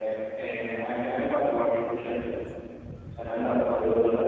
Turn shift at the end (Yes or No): Yes